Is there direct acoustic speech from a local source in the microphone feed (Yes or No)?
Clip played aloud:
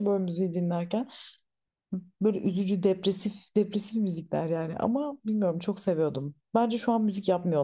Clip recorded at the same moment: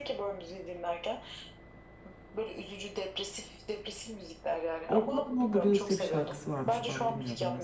Yes